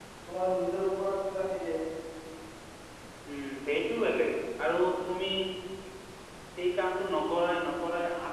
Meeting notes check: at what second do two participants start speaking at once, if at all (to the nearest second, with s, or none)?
none